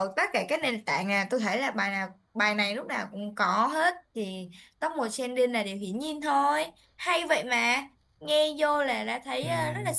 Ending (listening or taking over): listening